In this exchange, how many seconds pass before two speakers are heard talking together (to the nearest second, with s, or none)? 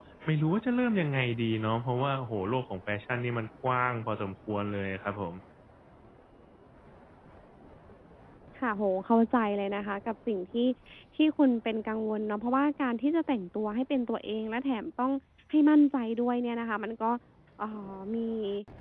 none